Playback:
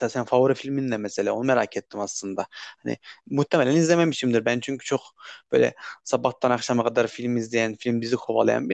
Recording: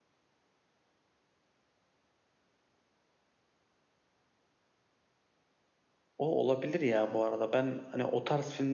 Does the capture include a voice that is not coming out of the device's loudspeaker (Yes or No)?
Yes